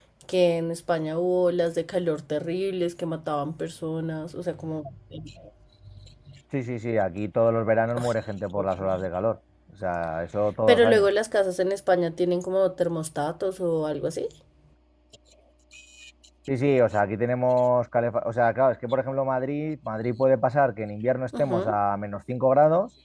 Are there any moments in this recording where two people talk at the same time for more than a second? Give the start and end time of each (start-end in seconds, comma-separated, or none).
none